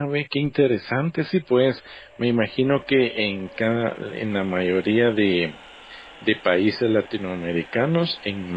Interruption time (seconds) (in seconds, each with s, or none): none